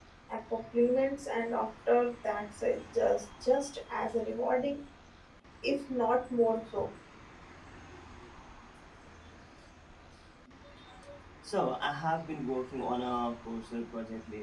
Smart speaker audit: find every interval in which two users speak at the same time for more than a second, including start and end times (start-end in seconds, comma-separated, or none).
none